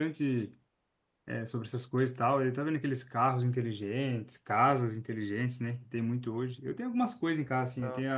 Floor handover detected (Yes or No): No